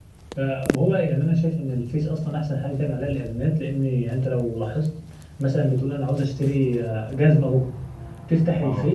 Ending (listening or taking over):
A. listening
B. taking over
A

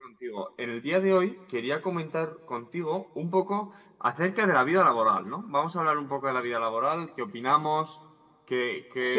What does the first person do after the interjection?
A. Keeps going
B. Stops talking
B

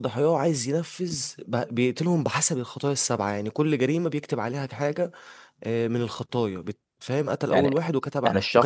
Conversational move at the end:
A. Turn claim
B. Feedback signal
A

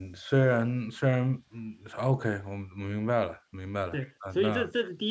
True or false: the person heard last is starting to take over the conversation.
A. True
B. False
A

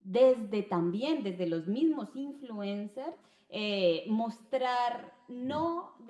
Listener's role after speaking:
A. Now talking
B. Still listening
B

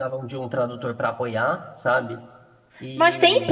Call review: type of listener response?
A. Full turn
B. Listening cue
A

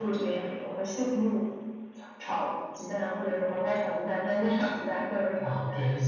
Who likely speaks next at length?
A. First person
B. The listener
B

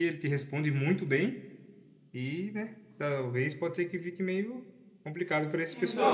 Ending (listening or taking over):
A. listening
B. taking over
B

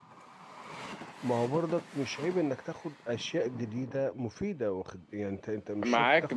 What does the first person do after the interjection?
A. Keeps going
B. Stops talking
B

